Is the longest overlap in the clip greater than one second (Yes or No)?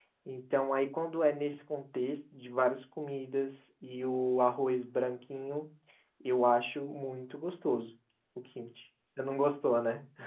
No